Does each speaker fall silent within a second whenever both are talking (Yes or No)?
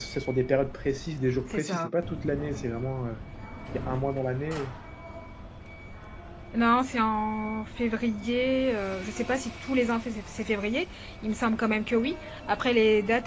Yes